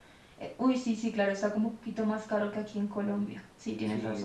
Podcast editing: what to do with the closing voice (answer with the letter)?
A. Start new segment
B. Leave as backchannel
A